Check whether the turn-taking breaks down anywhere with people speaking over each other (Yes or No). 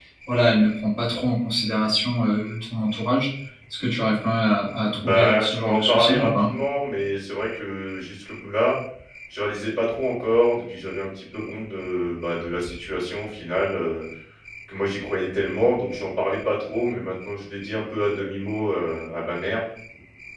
Yes